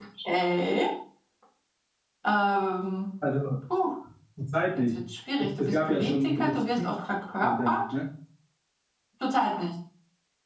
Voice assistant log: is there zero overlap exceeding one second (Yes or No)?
No